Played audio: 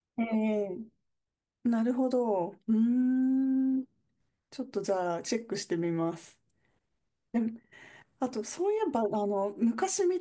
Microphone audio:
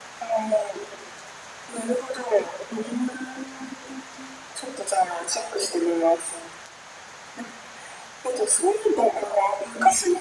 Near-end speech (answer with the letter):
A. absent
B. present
A